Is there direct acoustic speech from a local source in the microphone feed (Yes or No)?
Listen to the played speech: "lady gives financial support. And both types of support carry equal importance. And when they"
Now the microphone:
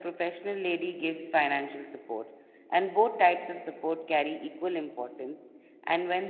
No